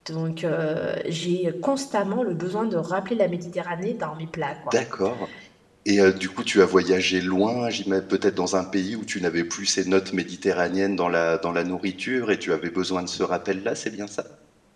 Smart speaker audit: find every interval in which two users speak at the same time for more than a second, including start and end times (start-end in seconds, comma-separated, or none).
none